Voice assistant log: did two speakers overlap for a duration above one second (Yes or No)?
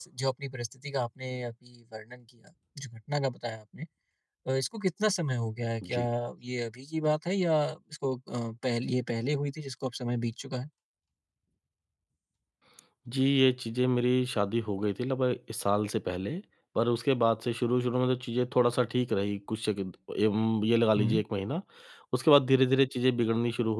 No